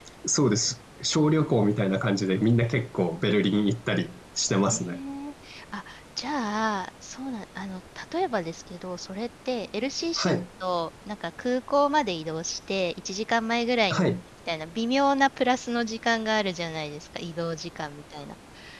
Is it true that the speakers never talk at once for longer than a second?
Yes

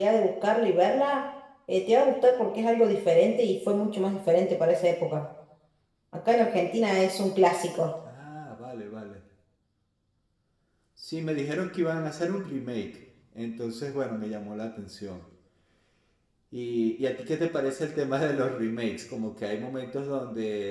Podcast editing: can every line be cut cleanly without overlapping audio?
Yes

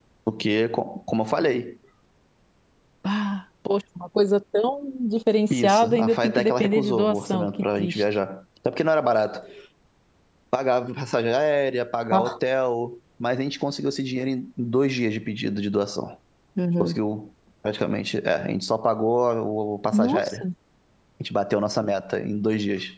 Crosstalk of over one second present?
Yes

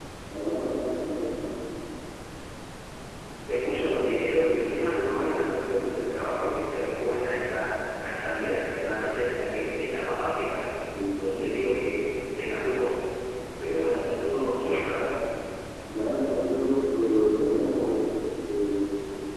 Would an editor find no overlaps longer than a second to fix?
Yes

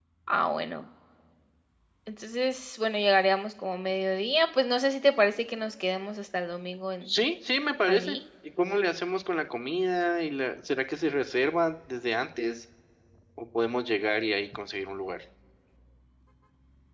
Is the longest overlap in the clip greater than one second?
No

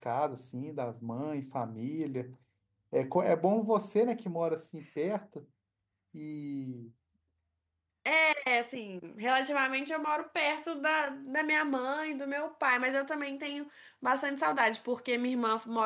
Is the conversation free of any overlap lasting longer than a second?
Yes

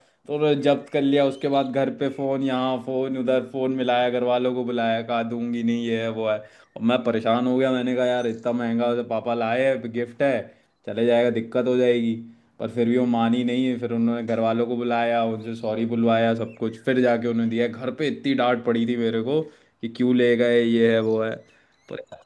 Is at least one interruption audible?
No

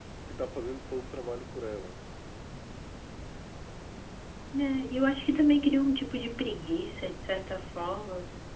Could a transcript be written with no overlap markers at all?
Yes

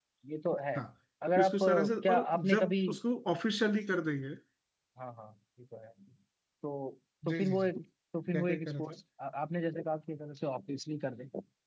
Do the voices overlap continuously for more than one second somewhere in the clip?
Yes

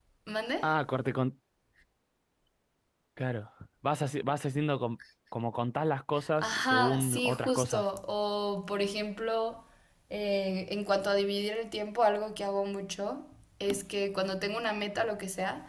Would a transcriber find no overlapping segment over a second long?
No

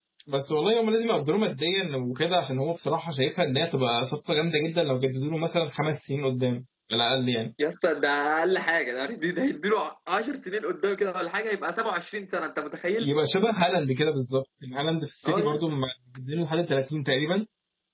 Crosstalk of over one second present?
No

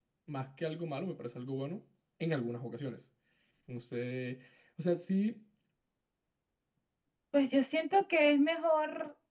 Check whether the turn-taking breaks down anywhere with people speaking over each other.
No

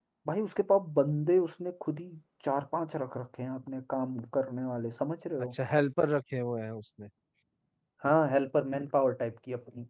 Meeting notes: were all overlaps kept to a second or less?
Yes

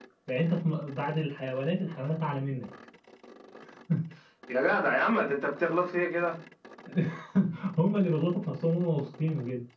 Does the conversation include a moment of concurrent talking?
No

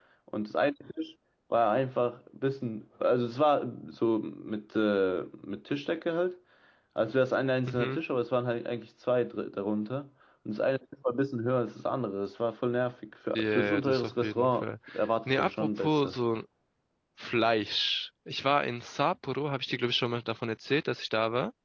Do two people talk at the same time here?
Yes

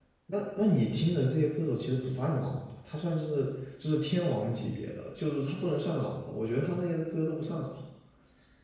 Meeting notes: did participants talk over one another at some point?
No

